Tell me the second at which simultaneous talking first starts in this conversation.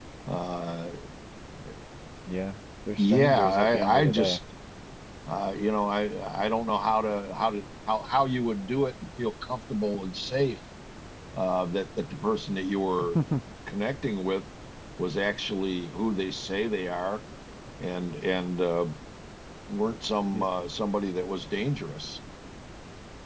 3.0 s

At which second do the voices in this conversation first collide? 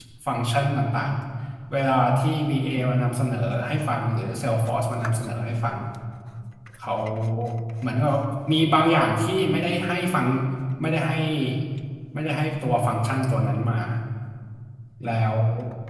none

